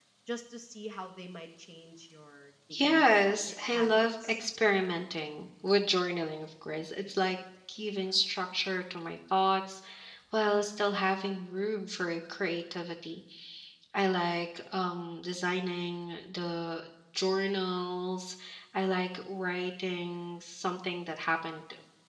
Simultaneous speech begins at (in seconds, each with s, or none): 2.7 s